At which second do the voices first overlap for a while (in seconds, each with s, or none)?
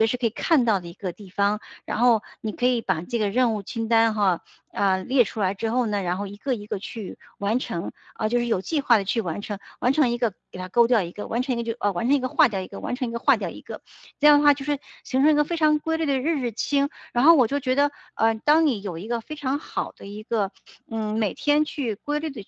none